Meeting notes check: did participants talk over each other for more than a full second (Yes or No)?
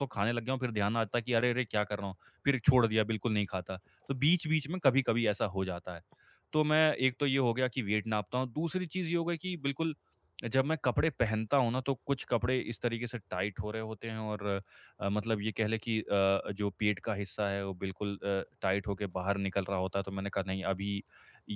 No